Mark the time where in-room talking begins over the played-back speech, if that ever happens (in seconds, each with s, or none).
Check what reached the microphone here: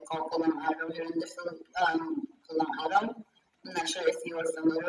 none